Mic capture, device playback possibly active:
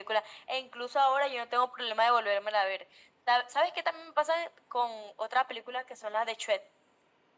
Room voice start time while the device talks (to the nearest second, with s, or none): none